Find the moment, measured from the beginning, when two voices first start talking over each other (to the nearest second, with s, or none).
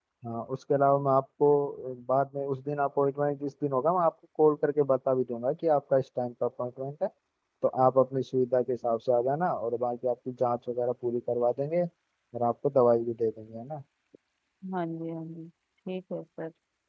none